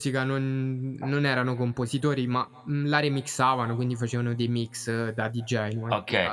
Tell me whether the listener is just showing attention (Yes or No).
No